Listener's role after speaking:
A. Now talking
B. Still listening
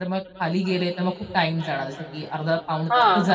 B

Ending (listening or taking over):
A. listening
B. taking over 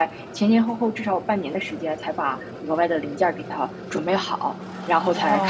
B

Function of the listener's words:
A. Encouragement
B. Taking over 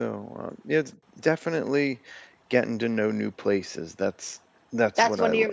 B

